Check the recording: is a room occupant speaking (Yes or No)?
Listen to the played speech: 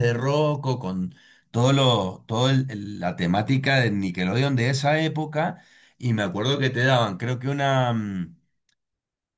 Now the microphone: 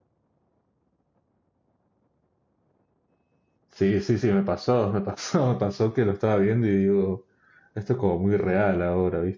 Yes